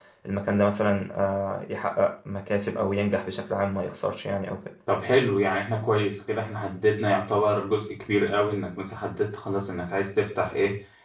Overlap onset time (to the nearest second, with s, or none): none